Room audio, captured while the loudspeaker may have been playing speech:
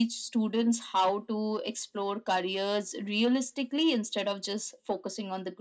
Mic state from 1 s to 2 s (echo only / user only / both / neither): echo only